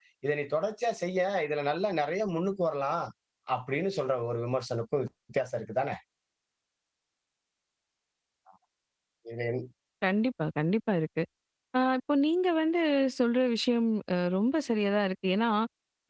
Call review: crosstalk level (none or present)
none